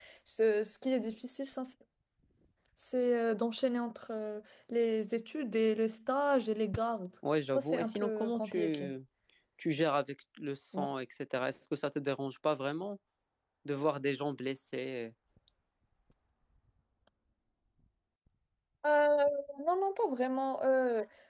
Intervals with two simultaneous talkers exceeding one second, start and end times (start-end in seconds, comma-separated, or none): 7.5-8.9